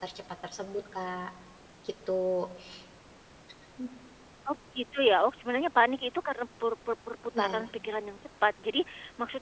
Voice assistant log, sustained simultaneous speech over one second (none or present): none